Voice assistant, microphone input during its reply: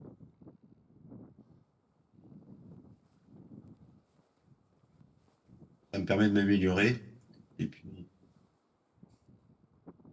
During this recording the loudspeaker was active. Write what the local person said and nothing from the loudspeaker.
Ça me permet de m'améliorer. Et puis,

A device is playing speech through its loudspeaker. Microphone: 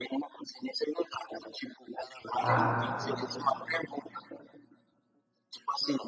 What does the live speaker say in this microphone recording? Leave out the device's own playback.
Ah,

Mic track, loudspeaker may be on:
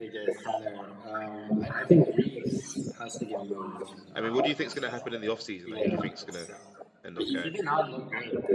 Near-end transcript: I mean, what do you think is going to happen in the off season? Like, who do you think is going to end up going?

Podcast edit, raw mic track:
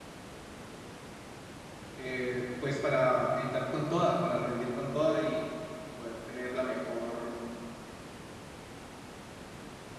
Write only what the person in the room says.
eh, pues para entrar con toda, para rendir con toda y, y poder tener la mejor,

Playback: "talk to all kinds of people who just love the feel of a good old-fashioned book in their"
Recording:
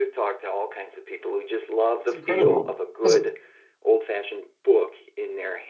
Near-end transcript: incredible. That's,

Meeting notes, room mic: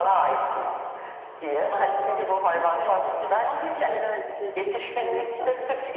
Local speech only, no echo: Aa nasıl meyve yasak ya? Neden peki alerji testi için meyve yasak?

